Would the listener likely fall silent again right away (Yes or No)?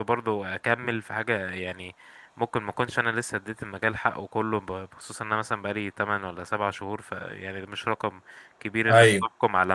Yes